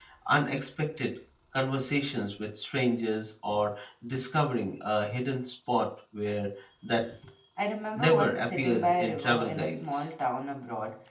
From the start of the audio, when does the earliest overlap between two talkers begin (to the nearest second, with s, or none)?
8 s